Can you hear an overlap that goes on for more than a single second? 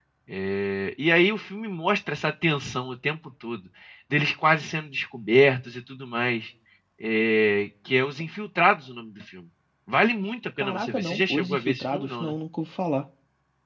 Yes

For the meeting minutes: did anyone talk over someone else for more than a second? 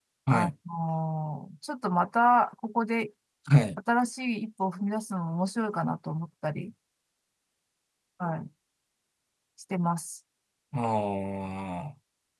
No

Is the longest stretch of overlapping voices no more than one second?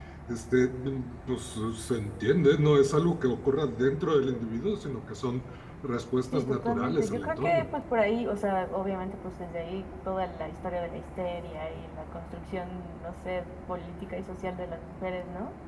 No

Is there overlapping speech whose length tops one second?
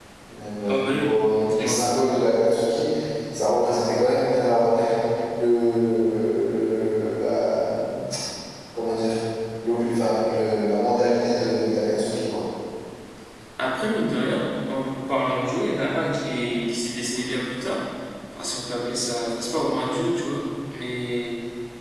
Yes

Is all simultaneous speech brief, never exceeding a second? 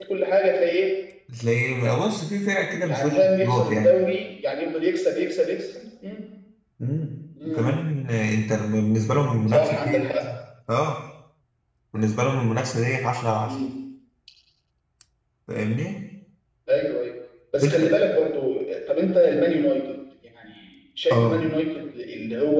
No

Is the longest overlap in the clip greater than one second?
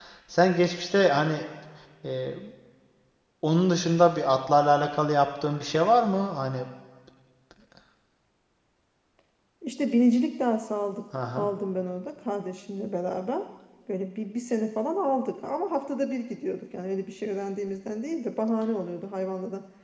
No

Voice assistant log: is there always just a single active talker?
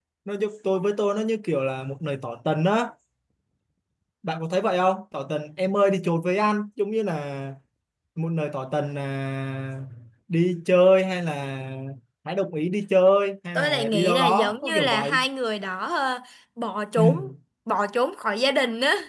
No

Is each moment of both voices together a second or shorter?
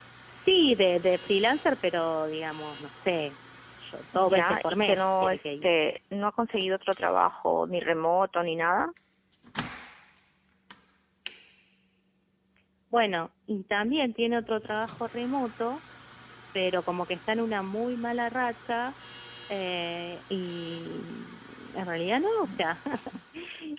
No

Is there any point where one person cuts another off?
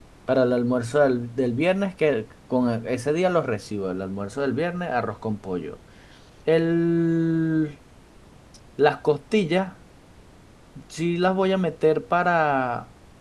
No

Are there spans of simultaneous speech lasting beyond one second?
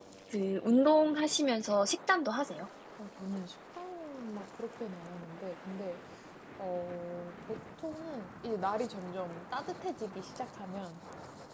No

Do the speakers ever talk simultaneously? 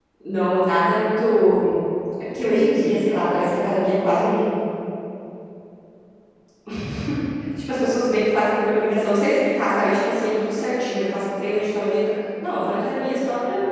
No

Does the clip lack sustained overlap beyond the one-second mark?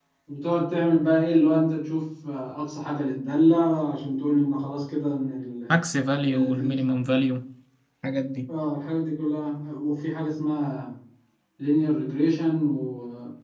Yes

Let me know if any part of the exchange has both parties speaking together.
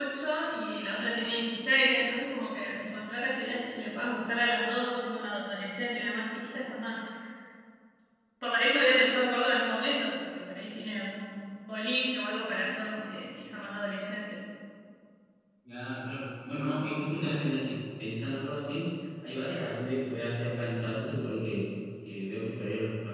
No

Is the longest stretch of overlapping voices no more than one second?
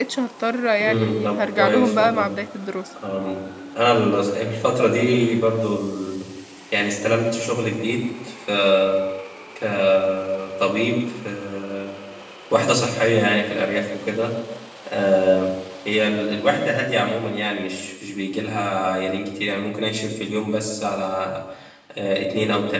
No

